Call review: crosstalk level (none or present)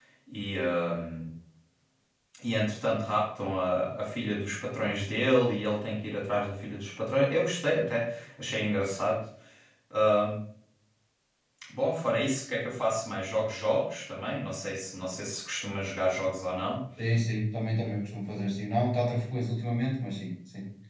none